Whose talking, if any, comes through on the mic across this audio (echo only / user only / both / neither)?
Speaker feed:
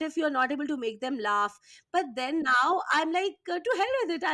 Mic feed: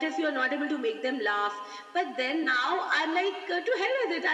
echo only